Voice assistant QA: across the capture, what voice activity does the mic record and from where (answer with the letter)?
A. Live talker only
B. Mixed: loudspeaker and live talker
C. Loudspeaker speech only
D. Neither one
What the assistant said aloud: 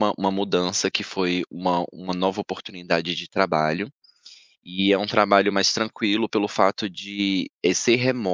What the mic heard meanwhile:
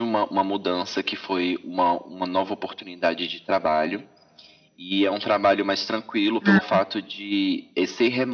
B